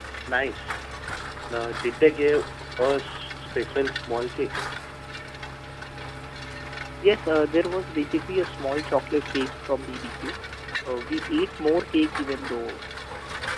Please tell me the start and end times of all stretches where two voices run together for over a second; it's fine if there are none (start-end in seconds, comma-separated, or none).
none